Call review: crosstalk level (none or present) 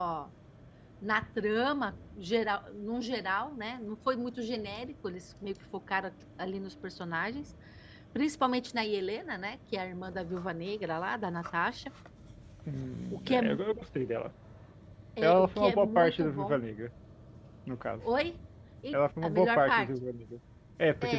present